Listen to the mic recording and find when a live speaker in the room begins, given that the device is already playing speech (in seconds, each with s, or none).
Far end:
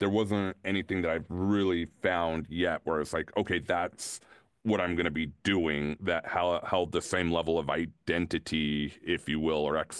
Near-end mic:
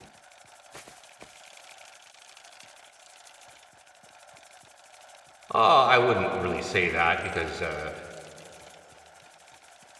5.5 s